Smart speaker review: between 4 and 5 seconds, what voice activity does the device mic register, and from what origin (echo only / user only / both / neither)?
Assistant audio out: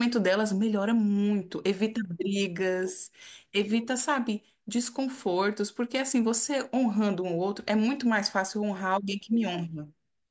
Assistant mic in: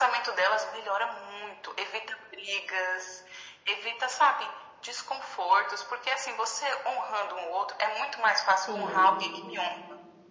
echo only